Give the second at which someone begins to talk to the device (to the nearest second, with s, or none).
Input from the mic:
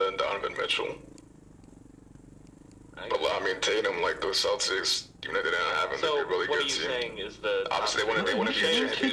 8 s